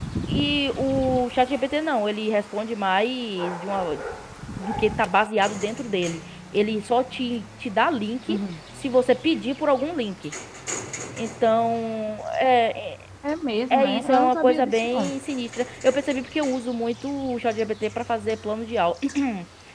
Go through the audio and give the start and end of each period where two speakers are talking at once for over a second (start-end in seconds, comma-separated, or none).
13.7-15.1